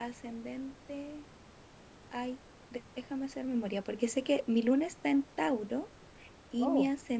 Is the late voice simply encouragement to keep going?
Yes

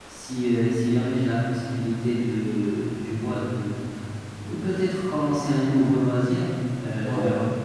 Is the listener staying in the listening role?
Yes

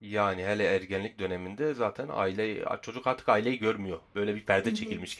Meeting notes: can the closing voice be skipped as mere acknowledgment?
No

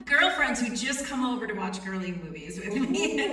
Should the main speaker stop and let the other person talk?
Yes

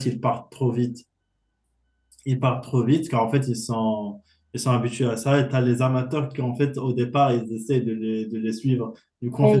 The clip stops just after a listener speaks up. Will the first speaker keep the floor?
No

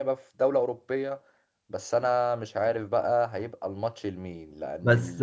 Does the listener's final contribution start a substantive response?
No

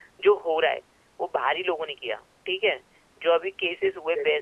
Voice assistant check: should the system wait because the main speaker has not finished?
Yes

